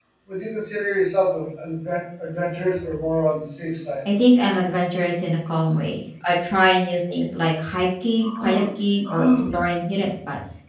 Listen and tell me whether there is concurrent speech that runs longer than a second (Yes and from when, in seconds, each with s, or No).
No